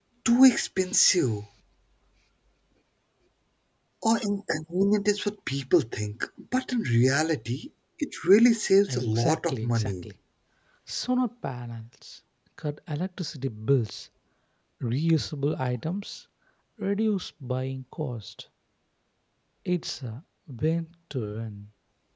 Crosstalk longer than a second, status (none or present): present